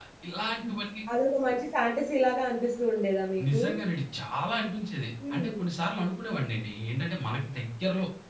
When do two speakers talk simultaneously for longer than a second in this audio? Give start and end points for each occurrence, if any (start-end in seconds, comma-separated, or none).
none